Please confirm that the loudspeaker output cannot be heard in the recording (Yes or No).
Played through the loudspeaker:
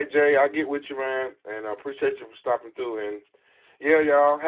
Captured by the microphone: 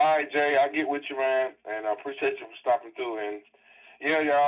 No